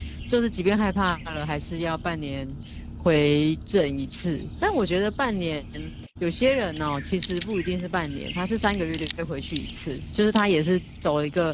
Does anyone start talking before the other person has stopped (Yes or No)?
No